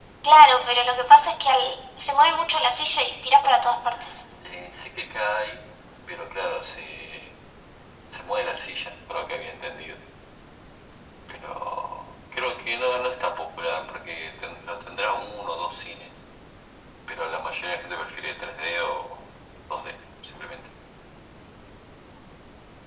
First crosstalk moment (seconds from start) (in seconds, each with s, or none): none